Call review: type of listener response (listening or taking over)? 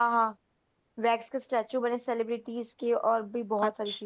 taking over